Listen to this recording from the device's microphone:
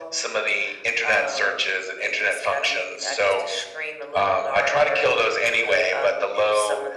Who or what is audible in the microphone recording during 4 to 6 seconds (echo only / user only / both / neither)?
echo only